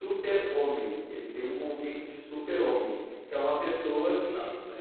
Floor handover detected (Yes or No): No